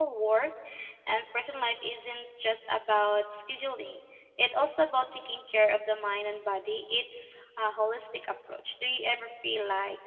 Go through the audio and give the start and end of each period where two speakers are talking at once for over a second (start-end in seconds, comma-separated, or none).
none